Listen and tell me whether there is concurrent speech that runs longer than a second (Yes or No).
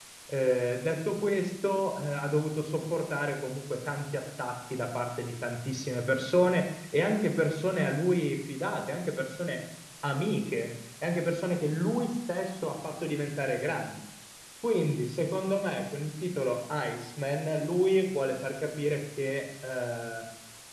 No